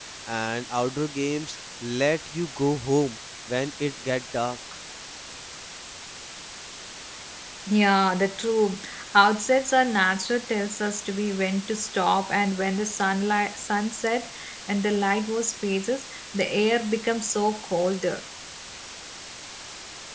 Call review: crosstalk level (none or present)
none